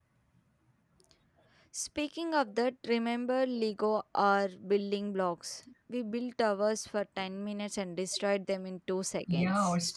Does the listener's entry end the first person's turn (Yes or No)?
Yes